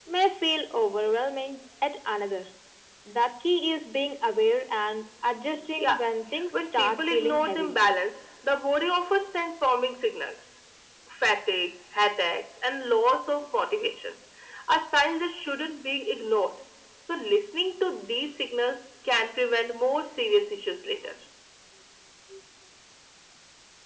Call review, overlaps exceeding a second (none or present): present